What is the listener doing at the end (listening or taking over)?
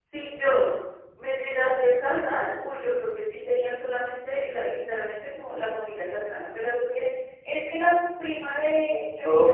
taking over